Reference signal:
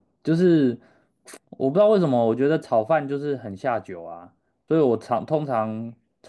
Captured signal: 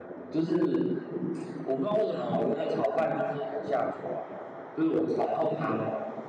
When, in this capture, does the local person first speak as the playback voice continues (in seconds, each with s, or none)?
none